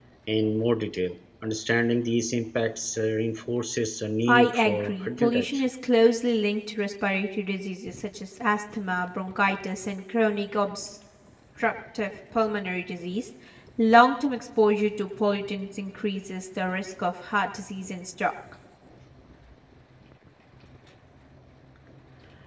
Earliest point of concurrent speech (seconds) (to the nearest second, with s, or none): 4 s